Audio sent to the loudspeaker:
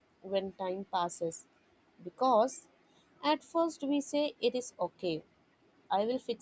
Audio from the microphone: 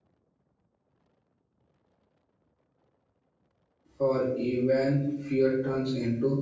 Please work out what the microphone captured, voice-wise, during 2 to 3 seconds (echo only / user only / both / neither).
neither